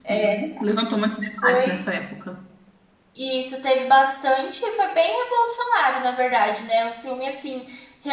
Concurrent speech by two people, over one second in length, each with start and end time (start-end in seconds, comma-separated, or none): none